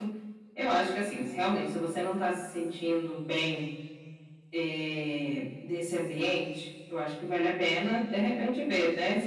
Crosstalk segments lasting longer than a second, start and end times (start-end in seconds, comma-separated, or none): none